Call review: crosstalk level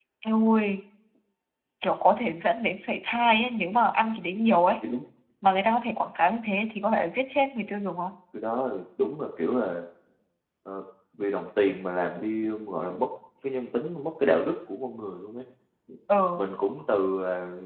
none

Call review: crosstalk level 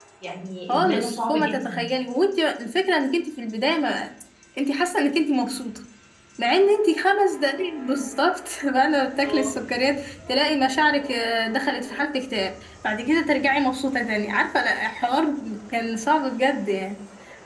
present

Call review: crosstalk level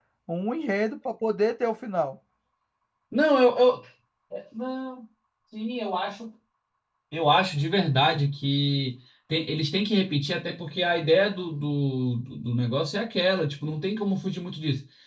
none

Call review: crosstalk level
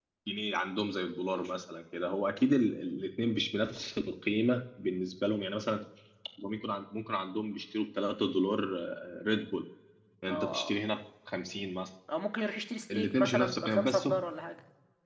present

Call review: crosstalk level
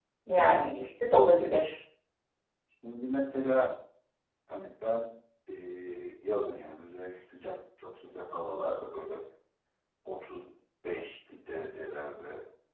none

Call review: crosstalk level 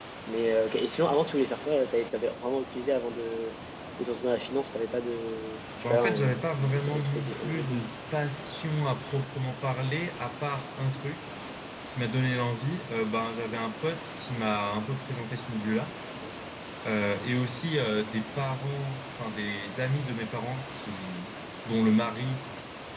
present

